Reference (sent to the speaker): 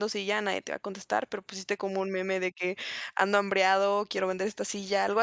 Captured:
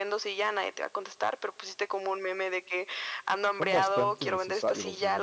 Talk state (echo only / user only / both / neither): both